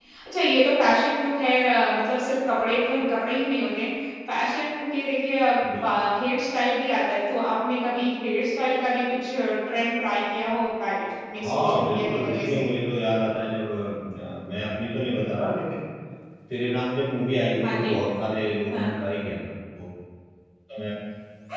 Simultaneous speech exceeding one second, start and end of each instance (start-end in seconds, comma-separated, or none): 11.4-12.7